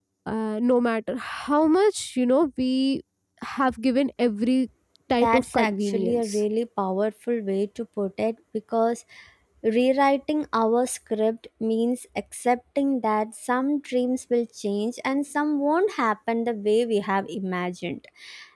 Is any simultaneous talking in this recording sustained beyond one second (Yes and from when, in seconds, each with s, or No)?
Yes, from 5.1 s